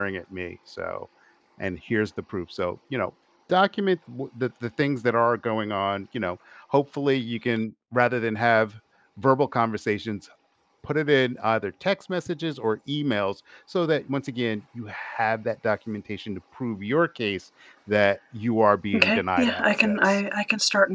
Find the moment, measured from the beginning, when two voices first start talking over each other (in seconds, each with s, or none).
18.9 s